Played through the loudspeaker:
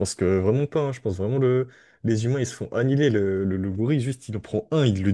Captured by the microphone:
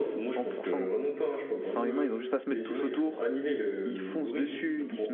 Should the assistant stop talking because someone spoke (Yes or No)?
Yes